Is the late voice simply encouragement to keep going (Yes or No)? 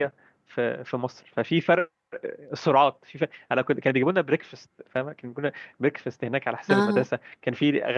Yes